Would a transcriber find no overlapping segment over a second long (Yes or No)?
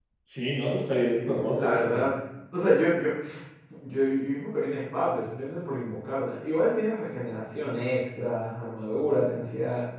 Yes